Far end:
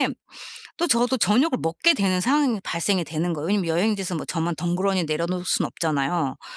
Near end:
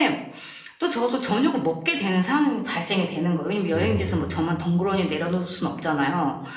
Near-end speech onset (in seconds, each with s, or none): 3.7 s